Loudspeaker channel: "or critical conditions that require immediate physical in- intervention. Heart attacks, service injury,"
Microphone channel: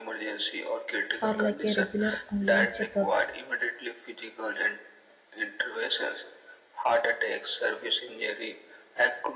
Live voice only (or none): or like a regular online checkups